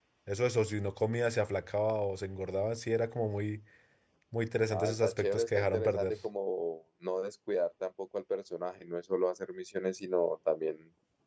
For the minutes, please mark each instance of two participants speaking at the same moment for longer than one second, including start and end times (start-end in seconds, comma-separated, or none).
4.7-6.1